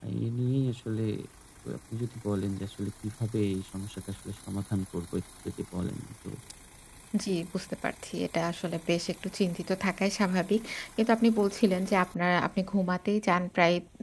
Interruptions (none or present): none